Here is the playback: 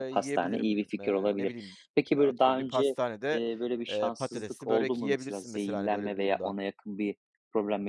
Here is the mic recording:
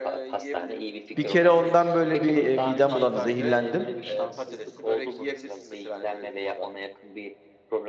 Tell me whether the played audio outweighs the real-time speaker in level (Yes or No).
No